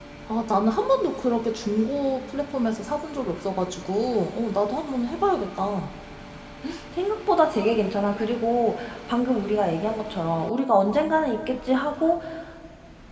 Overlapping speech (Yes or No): No